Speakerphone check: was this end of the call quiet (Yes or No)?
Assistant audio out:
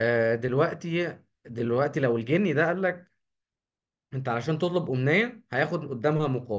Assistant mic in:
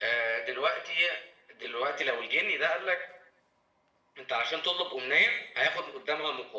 Yes